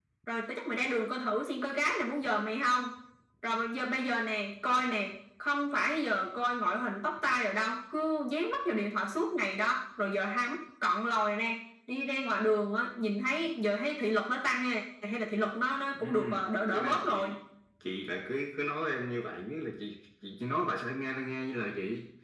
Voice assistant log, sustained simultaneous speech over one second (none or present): present